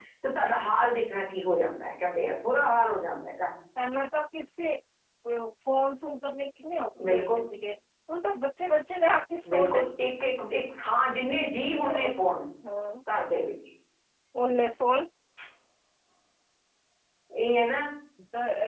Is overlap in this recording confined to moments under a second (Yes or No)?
Yes